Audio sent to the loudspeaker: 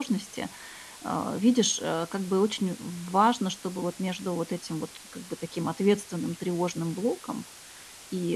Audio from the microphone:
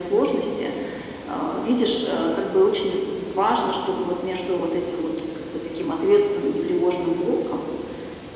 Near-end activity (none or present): none